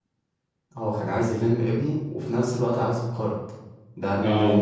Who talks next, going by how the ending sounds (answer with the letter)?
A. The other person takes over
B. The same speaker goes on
A